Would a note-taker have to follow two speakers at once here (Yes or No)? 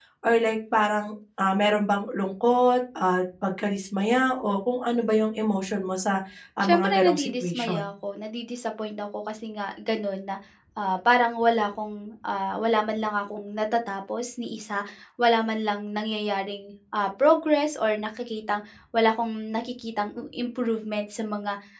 Yes